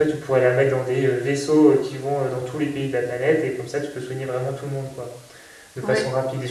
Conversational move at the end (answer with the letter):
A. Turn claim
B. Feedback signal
B